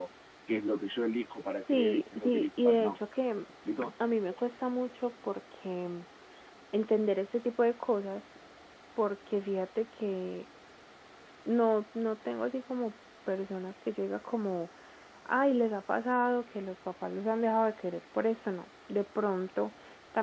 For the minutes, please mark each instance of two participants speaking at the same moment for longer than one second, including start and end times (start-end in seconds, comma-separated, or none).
1.7-3.0